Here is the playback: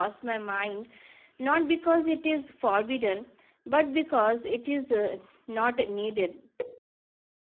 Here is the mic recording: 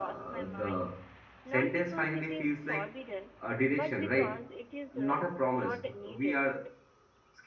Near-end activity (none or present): present